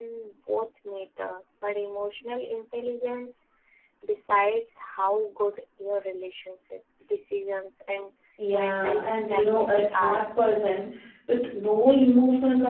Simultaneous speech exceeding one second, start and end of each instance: 8.5-10.2

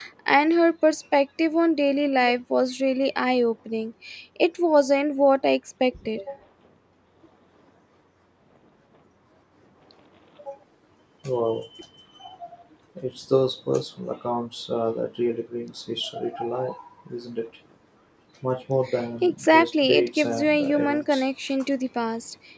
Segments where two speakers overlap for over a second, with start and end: 19.2-21.2

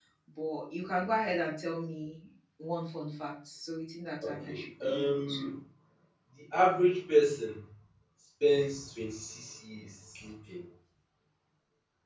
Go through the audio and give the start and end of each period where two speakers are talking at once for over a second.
4.2-5.5

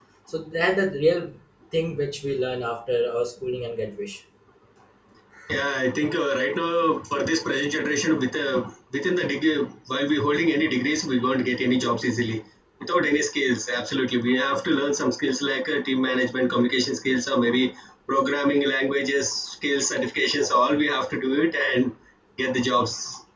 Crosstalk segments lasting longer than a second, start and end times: none

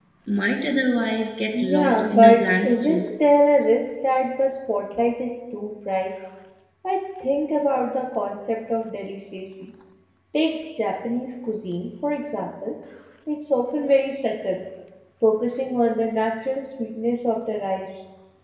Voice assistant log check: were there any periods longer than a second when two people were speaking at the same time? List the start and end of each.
1.7-3.0

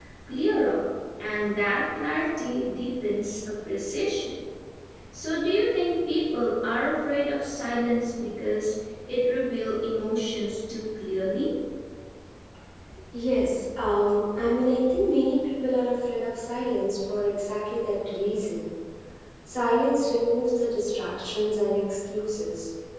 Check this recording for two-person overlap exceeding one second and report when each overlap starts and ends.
none

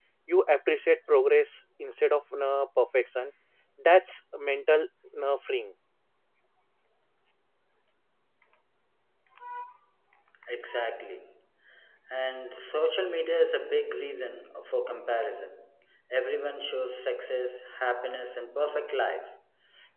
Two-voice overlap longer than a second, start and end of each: none

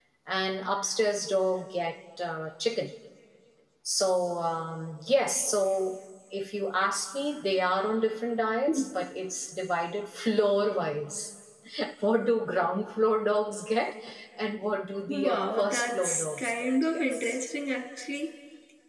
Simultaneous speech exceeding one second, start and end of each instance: 15.1-17.4

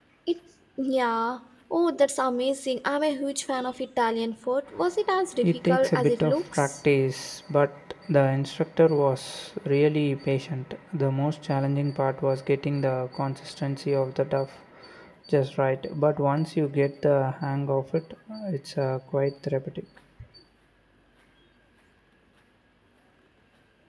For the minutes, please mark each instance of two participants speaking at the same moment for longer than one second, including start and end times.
5.4-6.8

